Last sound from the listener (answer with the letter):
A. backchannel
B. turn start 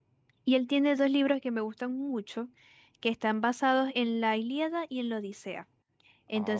A